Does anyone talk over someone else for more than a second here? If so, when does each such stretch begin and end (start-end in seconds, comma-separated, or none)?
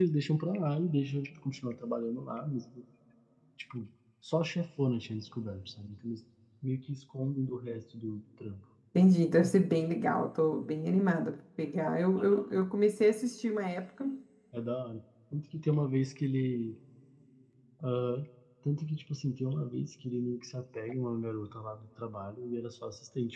none